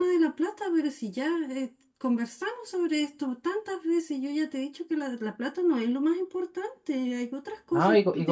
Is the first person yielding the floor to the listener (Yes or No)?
Yes